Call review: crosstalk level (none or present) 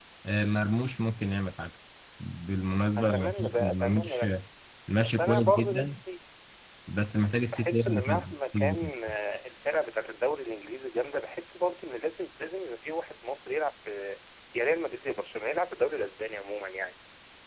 present